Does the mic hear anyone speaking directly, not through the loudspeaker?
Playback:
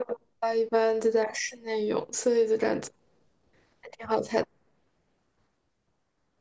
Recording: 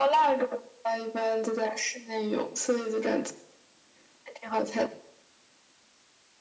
No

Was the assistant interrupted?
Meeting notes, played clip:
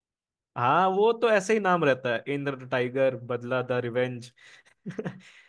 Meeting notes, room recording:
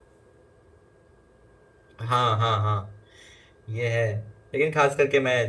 Yes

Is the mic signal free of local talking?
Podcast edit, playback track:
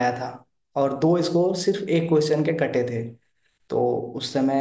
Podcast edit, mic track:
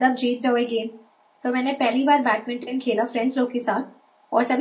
No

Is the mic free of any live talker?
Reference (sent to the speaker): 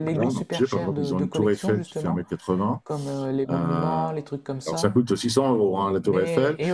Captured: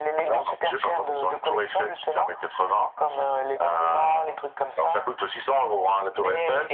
Yes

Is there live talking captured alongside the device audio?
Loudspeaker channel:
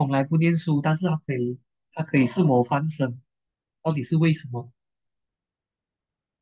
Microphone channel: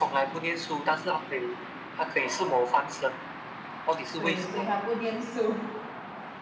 Yes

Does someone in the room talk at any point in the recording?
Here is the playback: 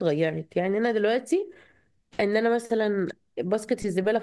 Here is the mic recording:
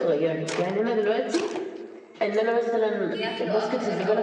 Yes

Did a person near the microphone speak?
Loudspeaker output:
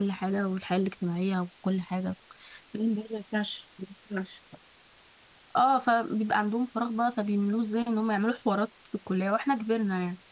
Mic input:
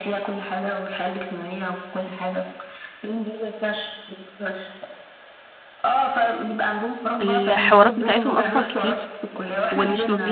Yes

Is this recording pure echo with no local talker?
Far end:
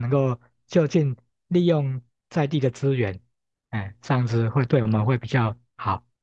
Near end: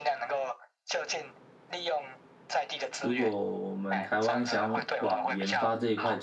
No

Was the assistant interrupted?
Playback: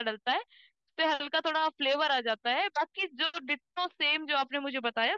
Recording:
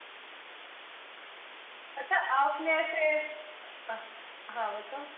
Yes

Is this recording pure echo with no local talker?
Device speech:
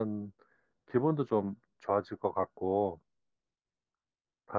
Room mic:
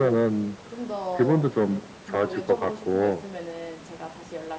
No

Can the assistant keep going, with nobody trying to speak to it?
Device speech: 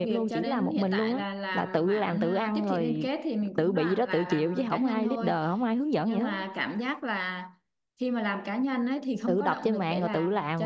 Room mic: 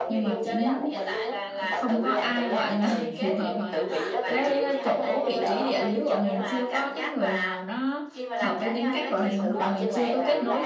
No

